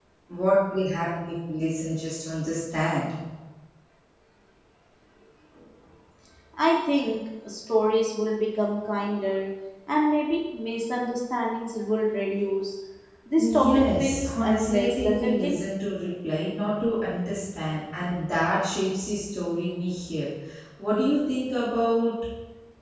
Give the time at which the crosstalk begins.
13.4 s

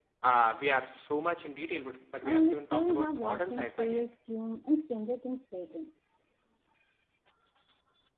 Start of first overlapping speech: 2.2 s

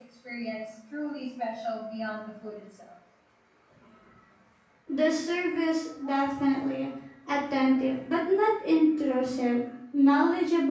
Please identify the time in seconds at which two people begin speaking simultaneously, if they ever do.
none

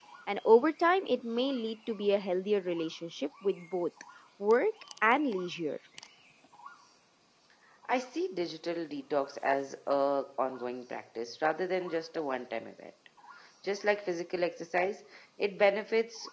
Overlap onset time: none

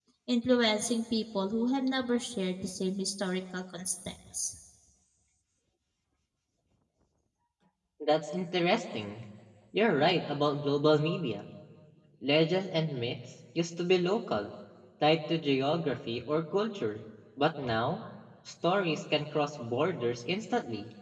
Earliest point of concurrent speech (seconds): none

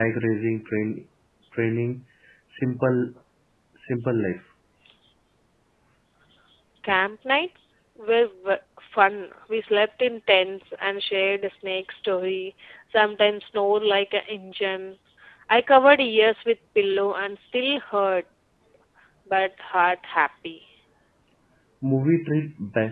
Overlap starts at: none

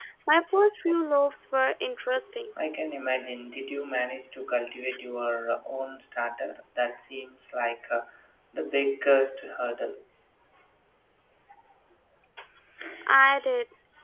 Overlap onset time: none

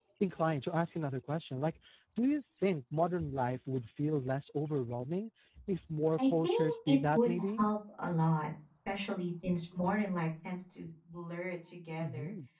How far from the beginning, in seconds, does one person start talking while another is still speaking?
6.2 s

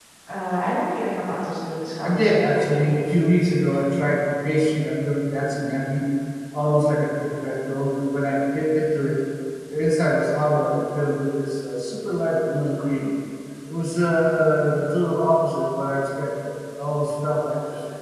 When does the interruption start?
2.0 s

